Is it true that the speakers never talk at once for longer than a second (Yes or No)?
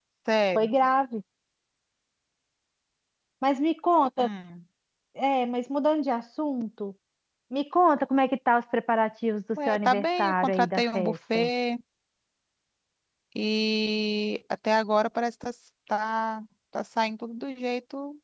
No